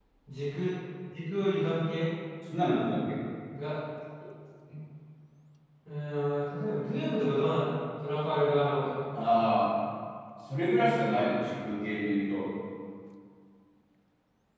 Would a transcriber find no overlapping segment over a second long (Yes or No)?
Yes